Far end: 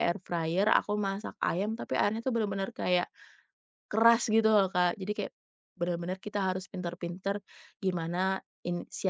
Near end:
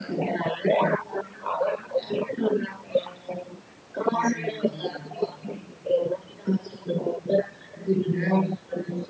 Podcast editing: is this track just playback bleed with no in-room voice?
No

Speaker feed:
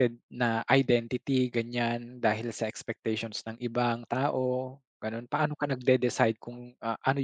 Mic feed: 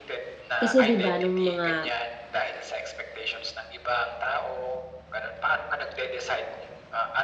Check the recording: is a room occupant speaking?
Yes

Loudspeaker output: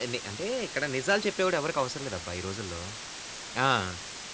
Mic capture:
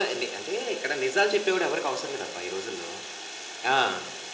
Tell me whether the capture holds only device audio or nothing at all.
Yes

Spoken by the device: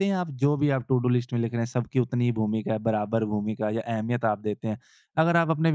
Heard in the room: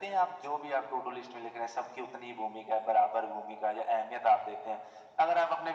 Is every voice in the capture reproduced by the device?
Yes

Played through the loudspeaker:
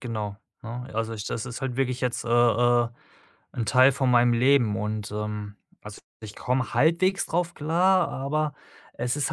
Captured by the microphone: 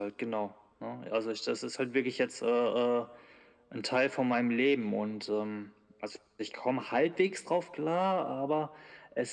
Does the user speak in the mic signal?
No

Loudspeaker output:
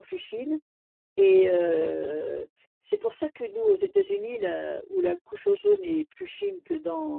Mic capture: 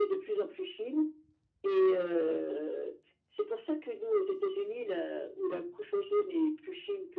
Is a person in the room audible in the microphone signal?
No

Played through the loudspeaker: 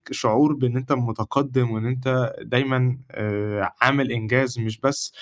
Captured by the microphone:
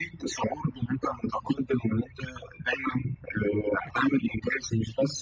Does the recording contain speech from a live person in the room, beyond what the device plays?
Yes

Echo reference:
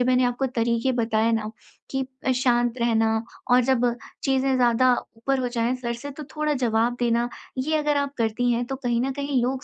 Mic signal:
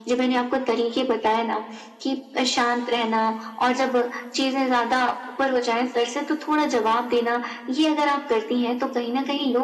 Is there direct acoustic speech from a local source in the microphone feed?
No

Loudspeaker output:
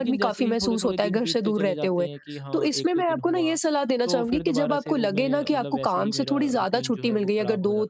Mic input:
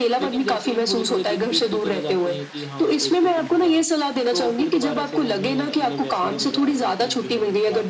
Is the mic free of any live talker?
Yes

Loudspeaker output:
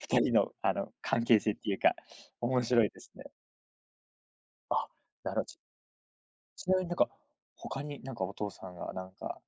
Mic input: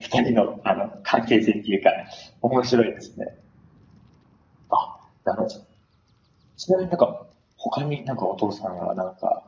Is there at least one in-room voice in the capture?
No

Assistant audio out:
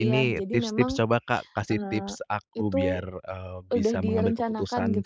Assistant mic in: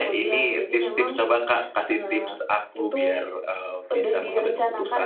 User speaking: No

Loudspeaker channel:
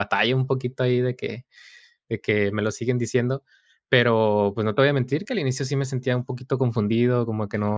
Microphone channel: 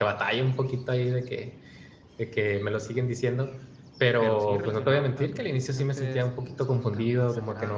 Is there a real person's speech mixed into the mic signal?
Yes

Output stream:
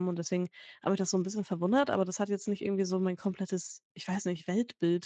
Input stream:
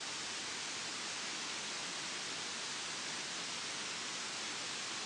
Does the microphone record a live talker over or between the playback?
No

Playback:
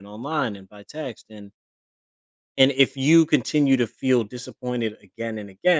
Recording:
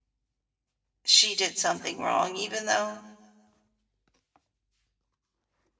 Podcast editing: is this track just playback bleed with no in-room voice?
No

